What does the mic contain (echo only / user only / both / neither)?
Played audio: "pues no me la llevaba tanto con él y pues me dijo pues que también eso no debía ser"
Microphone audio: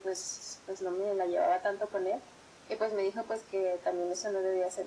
echo only